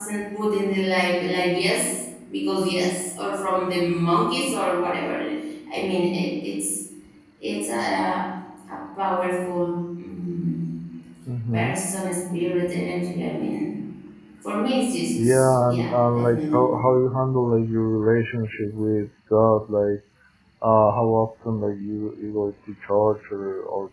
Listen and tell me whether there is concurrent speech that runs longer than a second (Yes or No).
Yes